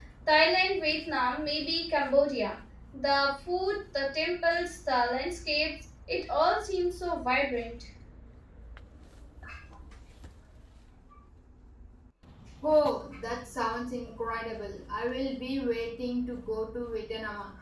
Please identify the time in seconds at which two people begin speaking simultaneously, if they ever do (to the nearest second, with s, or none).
none